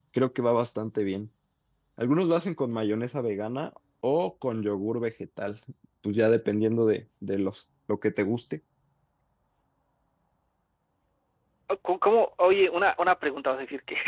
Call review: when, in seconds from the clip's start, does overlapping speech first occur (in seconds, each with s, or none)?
none